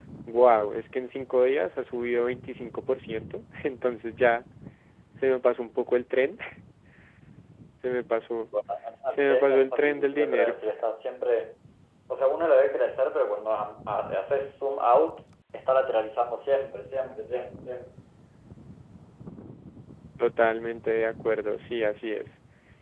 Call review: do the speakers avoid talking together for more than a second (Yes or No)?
No